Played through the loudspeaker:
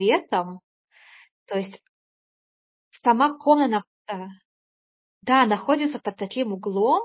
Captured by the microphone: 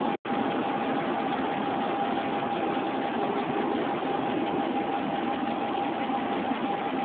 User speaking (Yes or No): No